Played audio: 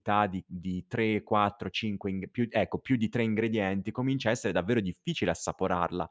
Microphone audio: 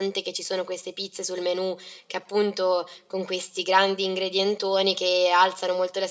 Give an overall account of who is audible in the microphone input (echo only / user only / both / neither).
user only